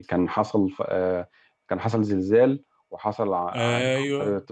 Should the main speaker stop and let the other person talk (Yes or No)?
No